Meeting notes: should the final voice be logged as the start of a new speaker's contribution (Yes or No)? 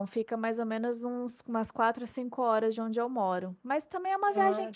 No